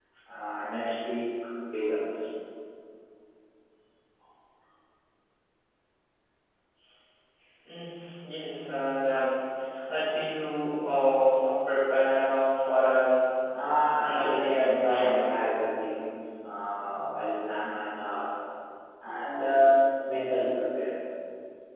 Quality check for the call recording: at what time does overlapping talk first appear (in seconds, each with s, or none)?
14.0 s